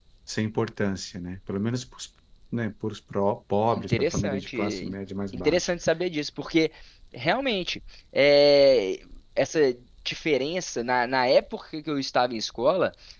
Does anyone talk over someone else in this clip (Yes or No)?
Yes